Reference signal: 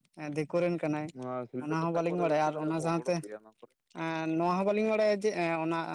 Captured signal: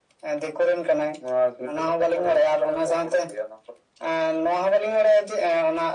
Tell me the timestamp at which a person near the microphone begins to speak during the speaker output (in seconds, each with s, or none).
none